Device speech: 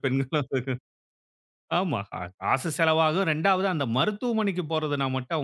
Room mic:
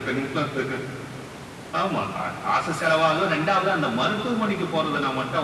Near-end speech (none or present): none